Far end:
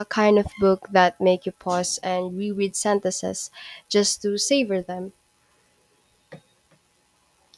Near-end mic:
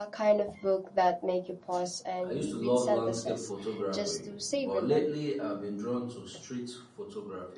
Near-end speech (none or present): present